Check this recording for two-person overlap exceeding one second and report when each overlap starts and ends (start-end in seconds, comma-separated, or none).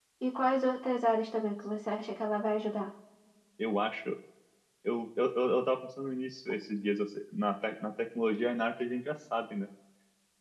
none